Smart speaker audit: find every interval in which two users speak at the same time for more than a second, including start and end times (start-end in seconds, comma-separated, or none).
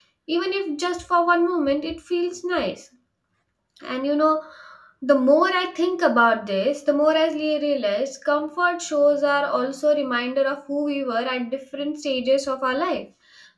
none